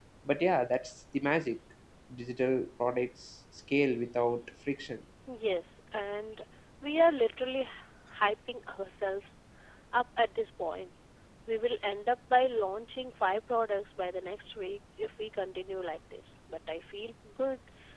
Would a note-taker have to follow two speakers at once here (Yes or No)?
No